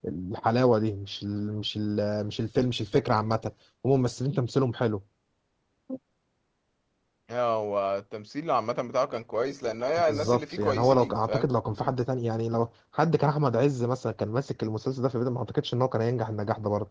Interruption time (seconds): 10.0 s

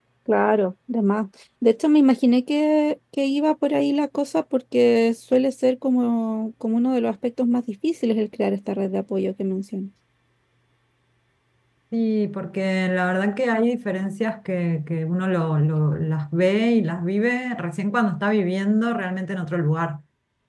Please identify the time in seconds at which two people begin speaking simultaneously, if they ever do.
none

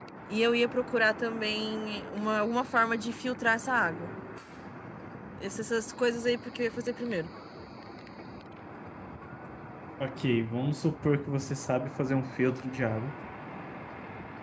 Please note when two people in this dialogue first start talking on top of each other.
none

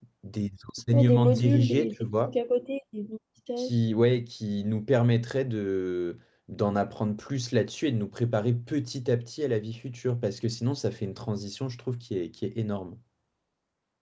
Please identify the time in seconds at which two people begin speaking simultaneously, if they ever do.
0.9 s

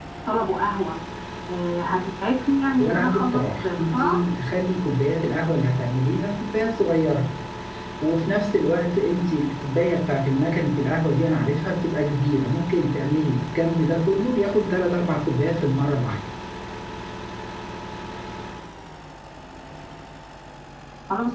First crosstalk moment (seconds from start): 2.8 s

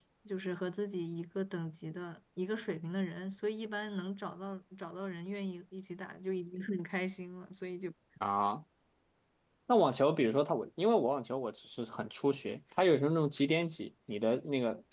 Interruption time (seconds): none

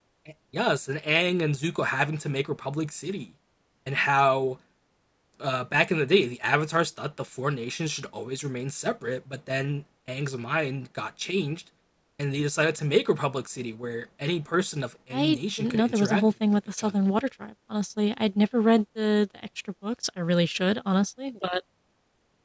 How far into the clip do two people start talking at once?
15.1 s

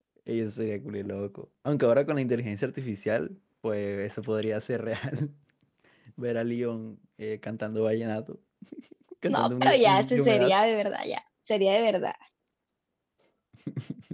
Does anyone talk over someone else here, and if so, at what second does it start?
9.3 s

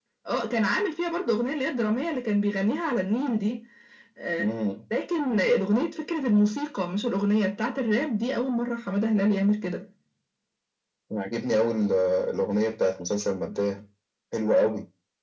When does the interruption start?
none

